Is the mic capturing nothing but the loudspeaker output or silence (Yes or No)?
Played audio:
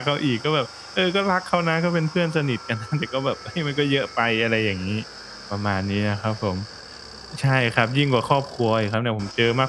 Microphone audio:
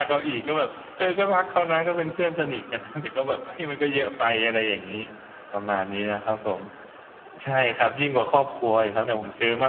Yes